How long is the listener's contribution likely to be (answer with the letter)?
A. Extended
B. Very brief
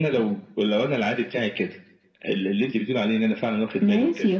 A